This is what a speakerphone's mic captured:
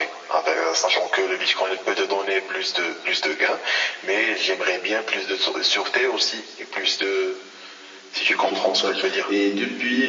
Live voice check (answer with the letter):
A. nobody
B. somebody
B